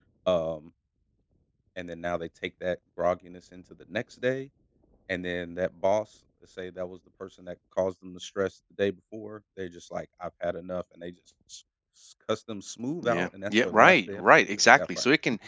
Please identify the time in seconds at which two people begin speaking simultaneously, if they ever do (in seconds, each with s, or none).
13.0 s